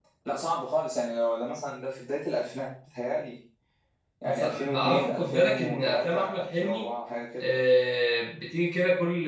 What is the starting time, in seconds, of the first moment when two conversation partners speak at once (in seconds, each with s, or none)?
4.2 s